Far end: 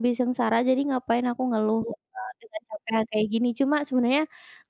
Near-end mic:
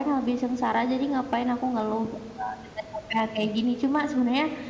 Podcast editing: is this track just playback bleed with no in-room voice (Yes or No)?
Yes